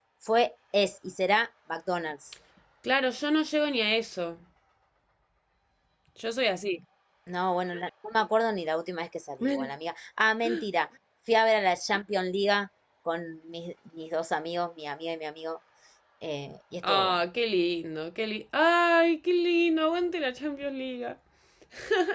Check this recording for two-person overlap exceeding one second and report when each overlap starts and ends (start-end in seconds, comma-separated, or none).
none